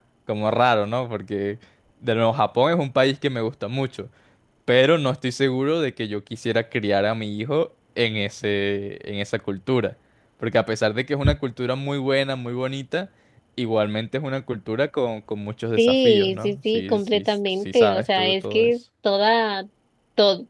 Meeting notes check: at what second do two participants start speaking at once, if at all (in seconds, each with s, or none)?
15.8 s